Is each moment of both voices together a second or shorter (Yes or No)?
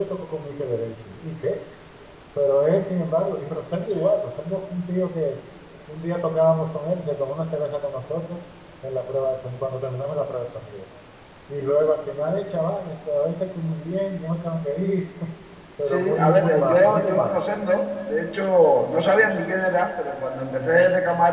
No